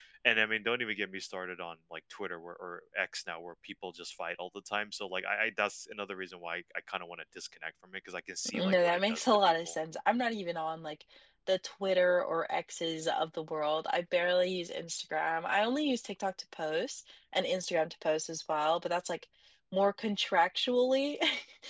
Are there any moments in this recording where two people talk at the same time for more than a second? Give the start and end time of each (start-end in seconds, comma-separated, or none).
8.5-9.8